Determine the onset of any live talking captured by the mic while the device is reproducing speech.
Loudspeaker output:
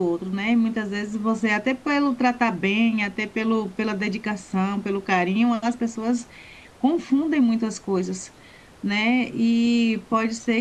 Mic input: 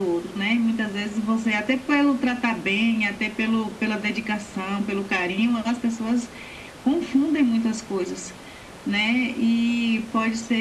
none

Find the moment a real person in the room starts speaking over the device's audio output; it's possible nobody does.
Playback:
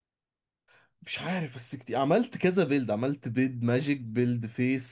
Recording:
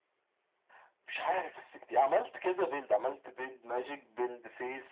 none

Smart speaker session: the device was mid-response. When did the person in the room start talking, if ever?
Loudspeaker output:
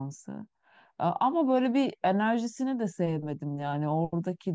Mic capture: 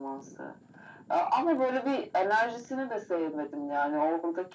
none

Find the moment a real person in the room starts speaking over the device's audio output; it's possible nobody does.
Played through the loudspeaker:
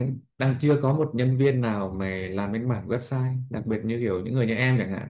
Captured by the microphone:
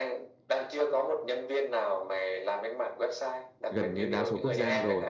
4 s

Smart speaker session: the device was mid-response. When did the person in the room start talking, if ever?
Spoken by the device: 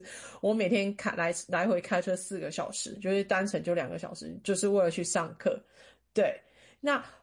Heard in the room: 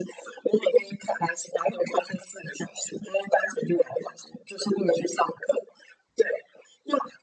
none

